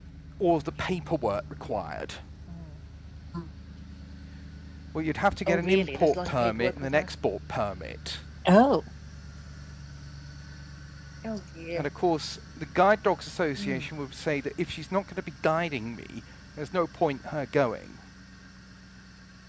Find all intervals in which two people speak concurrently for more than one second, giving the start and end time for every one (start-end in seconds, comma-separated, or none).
5.5-7.1